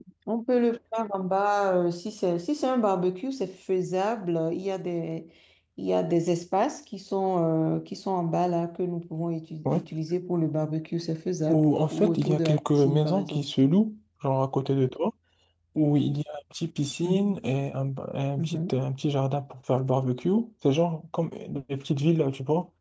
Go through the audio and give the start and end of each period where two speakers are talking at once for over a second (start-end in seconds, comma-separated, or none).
11.5-13.5